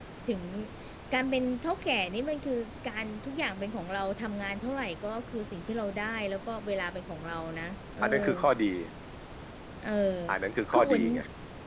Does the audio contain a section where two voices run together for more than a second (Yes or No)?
No